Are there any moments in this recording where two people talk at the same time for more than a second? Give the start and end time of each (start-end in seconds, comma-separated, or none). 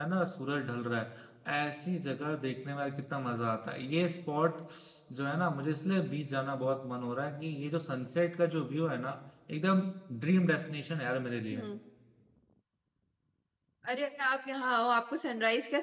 none